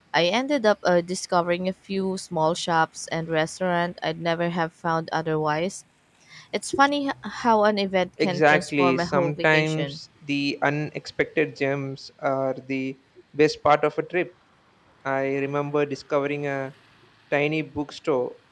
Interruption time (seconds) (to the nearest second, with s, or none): 8 s